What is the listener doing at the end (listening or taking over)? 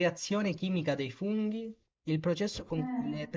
listening